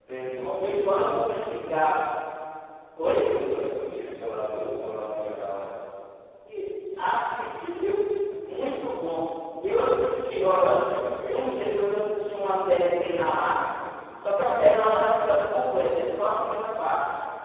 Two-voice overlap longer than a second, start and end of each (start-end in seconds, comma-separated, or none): 0.6-1.8